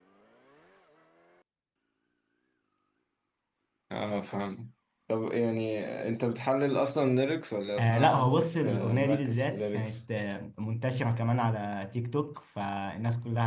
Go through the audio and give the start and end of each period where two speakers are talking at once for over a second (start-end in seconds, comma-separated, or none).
7.8-10.0